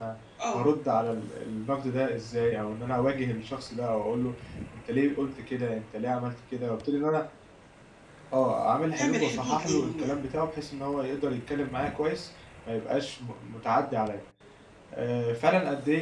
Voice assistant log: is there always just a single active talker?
No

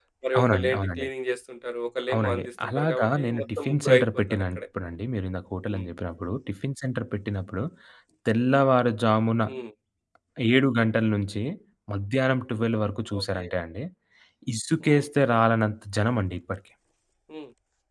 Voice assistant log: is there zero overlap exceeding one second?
No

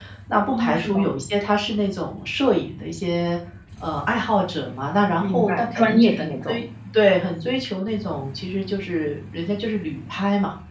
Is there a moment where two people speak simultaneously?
Yes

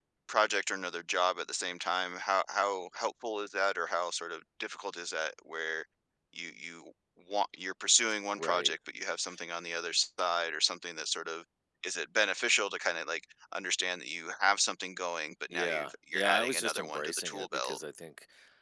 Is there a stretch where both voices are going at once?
Yes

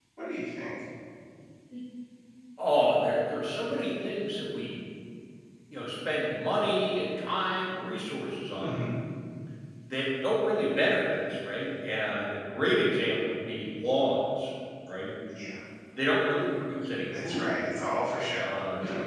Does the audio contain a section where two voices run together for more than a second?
No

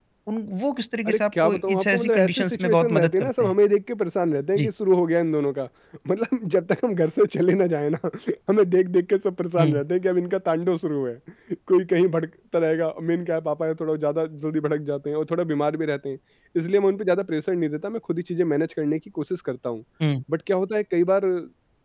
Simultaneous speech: Yes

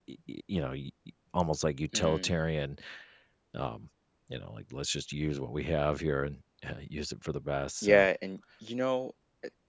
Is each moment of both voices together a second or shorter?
Yes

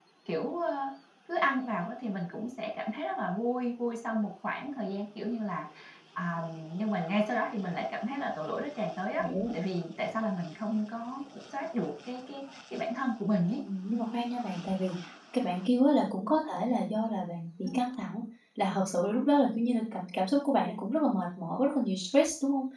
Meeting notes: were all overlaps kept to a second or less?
Yes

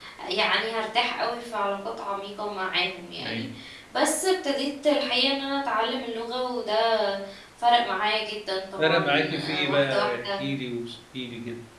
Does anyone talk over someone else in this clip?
Yes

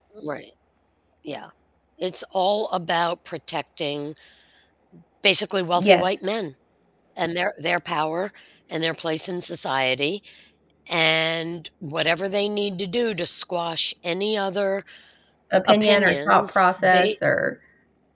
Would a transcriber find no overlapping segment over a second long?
No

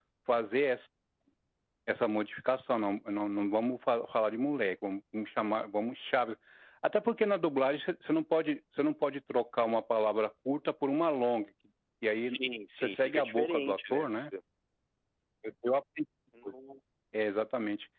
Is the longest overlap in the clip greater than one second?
Yes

